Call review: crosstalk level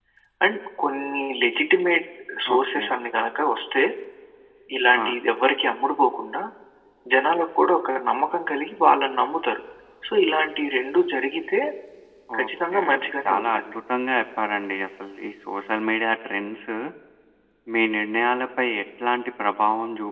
present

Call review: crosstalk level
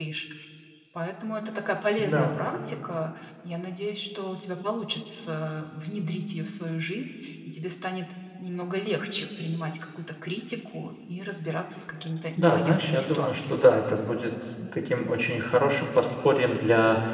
present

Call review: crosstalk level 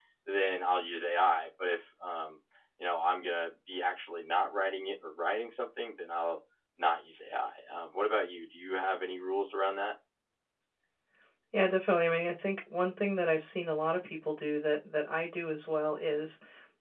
none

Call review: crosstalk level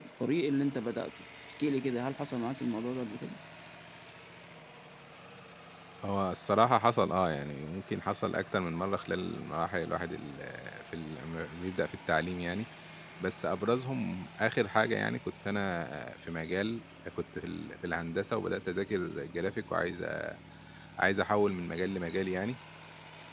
none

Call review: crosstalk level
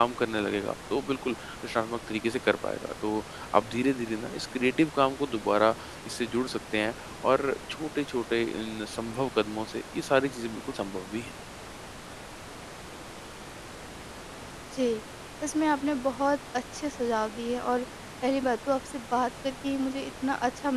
none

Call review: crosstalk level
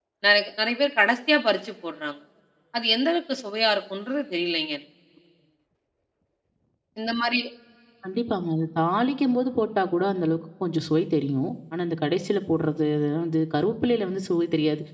none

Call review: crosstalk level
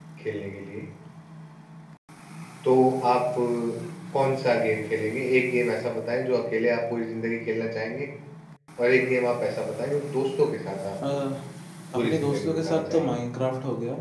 present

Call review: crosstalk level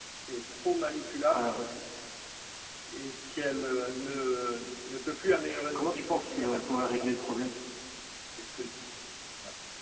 present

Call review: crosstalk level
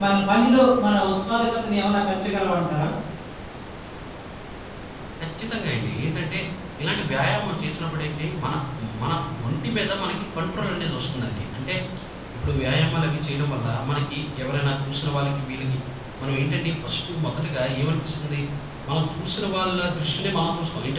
none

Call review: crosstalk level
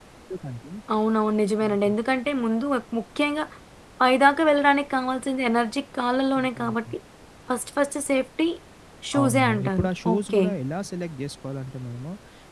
present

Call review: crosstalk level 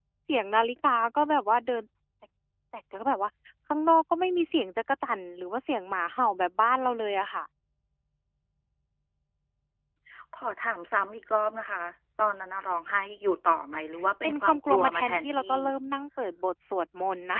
present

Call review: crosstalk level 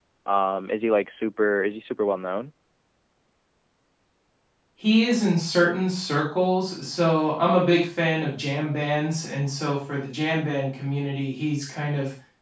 none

